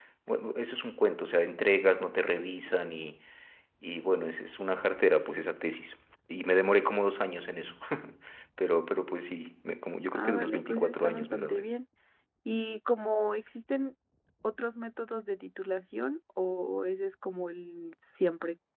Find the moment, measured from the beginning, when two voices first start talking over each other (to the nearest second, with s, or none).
10 s